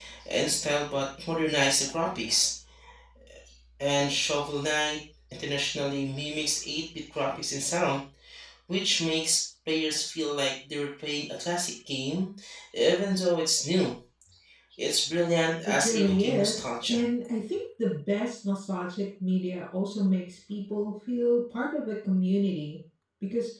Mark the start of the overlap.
15.7 s

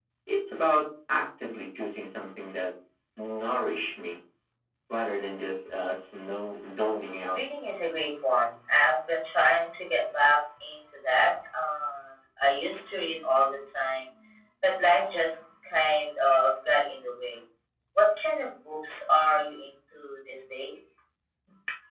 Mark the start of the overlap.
none

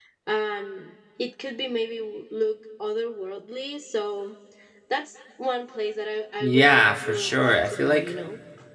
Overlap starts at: 6.4 s

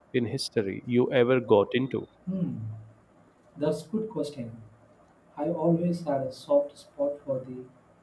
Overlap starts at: none

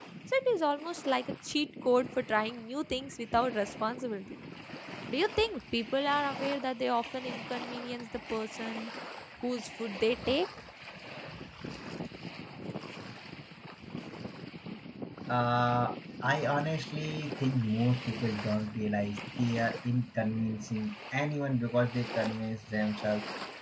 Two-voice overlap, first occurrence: none

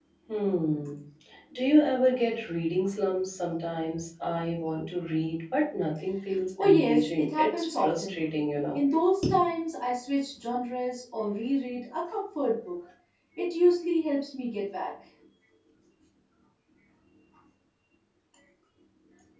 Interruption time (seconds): 6.6 s

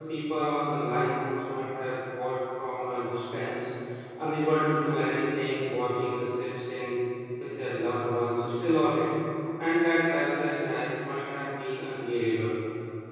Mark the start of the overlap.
none

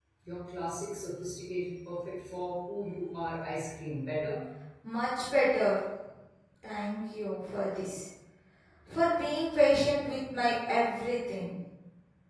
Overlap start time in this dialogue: none

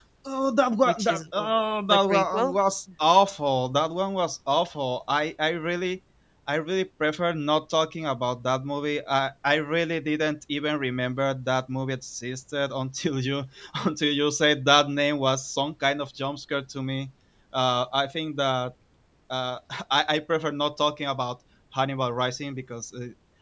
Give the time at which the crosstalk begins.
0.8 s

